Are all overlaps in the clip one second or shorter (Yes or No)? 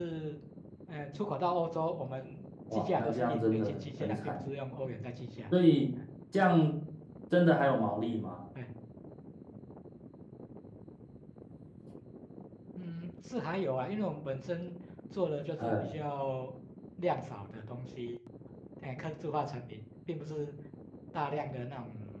No